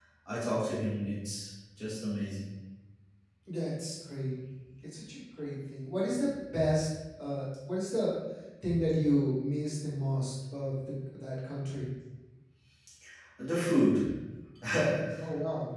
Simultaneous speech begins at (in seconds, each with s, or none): none